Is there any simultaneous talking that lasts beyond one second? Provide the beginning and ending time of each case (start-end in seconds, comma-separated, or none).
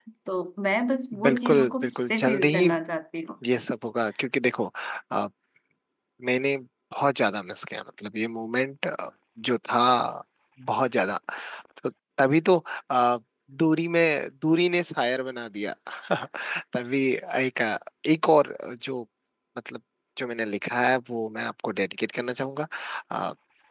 1.2-2.7